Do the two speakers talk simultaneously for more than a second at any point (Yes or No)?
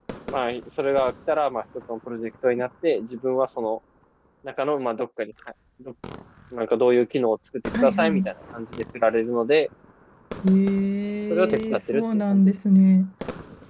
Yes